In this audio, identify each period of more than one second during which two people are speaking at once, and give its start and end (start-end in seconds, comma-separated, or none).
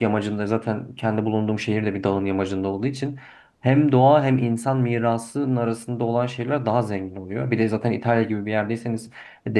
none